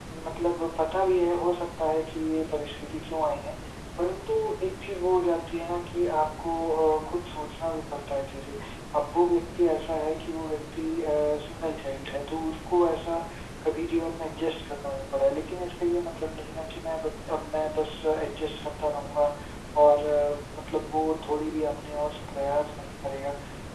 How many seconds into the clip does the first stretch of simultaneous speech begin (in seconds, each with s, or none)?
none